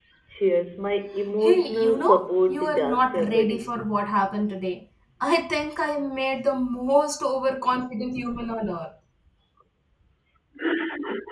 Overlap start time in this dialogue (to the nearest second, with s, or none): 1 s